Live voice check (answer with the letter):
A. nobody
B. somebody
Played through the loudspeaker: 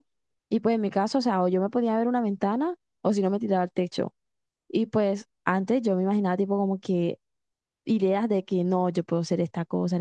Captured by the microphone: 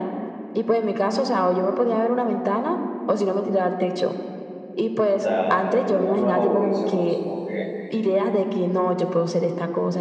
B